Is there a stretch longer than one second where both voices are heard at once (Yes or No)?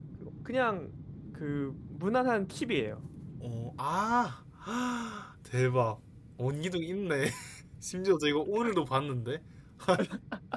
No